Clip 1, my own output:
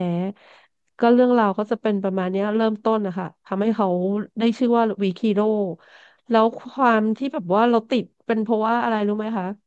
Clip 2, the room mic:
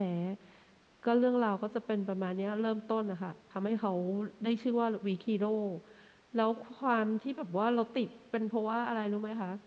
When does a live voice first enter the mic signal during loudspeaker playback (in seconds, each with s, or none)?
none